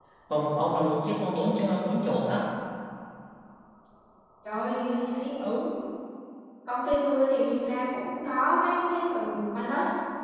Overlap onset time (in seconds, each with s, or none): none